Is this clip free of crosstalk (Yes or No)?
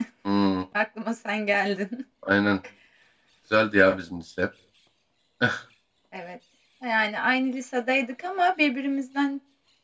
Yes